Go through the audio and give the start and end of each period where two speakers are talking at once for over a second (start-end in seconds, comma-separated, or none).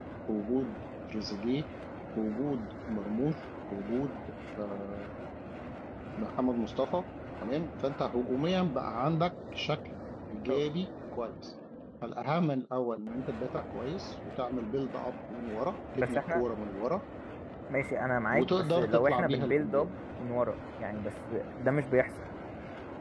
18.3-19.9